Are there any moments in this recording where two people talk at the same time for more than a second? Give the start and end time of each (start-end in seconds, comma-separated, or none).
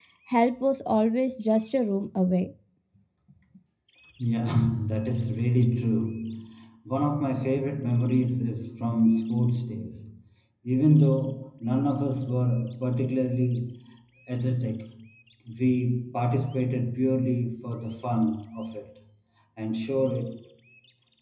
none